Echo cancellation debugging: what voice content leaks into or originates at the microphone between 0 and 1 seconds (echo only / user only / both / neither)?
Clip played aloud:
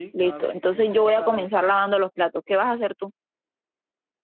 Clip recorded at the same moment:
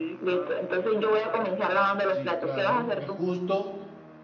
echo only